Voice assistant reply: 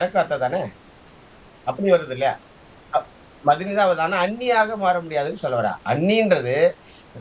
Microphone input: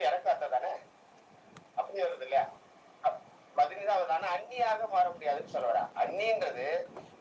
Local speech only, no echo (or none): none